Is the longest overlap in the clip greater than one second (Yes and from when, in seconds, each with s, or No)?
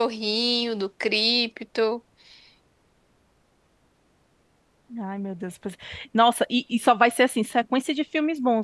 No